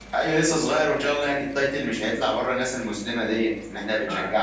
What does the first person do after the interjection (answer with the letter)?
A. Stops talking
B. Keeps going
A